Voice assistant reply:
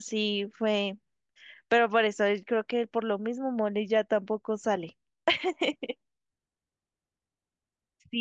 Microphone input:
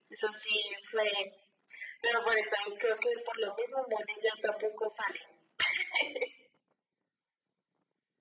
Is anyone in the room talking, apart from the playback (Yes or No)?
No